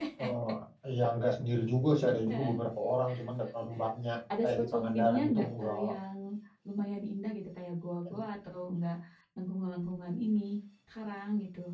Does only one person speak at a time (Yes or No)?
No